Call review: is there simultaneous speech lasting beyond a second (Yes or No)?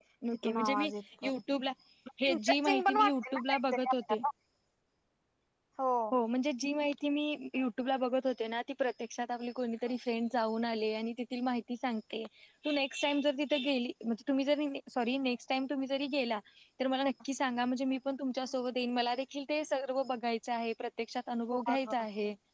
Yes